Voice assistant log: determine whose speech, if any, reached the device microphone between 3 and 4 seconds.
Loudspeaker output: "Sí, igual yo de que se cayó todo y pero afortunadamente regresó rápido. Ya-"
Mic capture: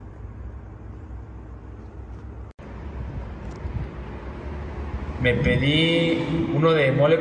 neither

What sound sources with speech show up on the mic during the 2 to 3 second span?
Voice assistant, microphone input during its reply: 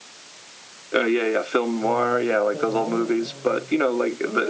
both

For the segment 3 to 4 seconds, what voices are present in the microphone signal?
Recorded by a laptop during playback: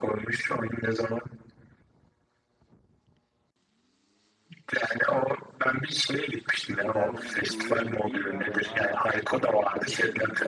neither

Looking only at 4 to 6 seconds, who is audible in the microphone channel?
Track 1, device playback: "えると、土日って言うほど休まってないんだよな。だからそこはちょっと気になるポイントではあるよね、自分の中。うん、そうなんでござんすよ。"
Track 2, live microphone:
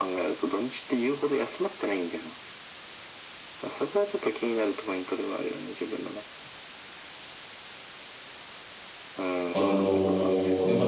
echo only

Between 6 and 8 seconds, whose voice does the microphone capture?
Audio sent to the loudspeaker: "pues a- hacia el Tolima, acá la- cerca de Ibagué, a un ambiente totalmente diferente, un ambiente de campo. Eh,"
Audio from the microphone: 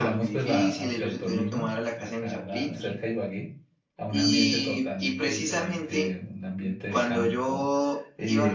both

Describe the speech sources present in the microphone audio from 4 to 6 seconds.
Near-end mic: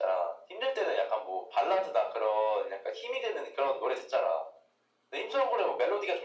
echo only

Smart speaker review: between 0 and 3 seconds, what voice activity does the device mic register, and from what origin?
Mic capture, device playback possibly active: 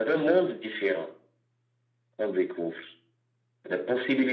echo only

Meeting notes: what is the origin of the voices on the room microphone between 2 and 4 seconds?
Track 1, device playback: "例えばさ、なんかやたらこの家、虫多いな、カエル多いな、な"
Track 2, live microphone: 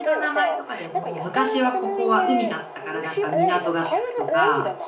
both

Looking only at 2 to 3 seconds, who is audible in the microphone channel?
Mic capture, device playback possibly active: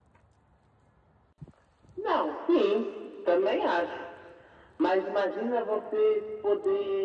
echo only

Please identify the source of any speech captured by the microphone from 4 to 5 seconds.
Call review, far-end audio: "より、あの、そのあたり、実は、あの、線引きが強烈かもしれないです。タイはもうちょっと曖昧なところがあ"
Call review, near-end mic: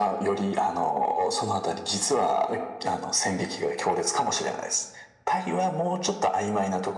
echo only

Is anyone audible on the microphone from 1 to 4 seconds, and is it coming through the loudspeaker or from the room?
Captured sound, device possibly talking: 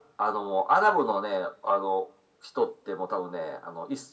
echo only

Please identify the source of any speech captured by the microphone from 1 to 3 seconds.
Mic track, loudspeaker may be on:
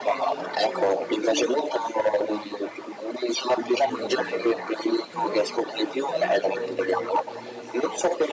both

